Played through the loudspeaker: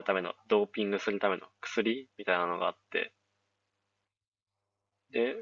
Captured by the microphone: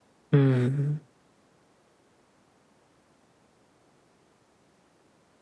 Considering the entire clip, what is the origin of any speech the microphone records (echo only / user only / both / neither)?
user only